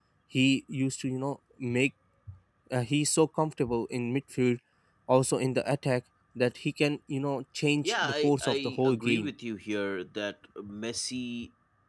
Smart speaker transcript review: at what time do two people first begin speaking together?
7.8 s

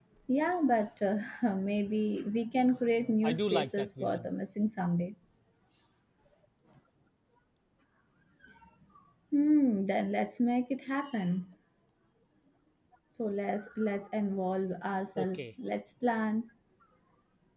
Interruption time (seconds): 3.0 s

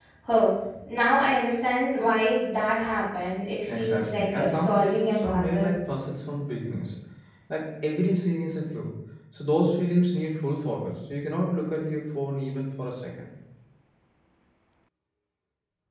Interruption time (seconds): 3.7 s

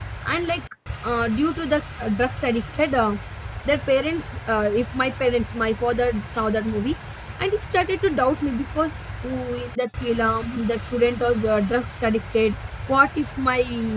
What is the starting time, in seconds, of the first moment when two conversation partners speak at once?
none

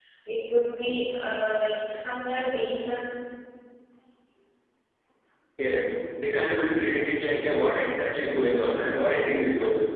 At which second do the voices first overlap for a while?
none

